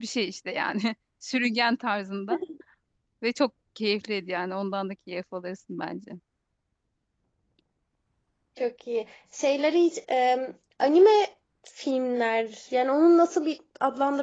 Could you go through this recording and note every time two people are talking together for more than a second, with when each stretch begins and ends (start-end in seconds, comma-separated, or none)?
none